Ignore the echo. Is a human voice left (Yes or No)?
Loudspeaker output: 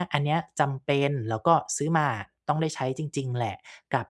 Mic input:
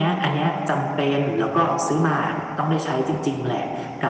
No